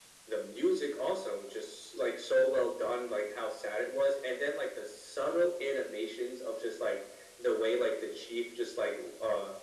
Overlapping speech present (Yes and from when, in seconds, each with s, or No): No